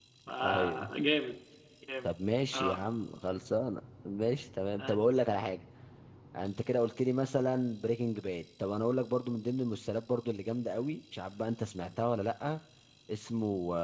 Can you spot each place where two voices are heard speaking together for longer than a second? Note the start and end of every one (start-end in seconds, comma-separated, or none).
none